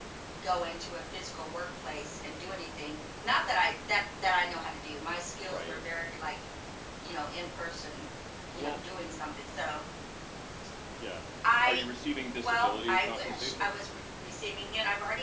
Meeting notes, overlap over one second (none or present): present